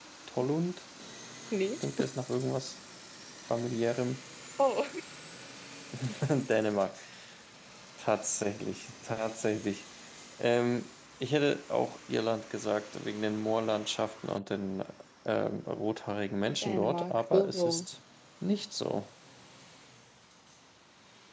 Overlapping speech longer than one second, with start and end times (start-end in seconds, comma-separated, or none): 16.6-17.9